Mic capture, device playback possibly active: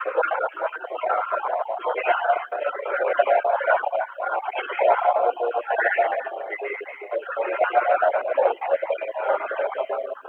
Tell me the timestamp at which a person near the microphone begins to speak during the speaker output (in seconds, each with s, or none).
none